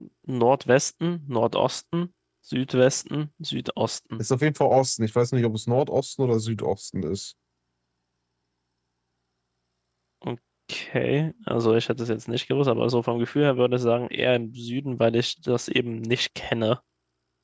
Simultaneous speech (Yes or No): No